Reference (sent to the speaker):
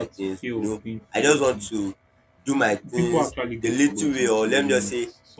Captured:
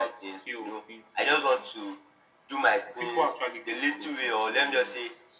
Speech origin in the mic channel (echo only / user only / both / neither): echo only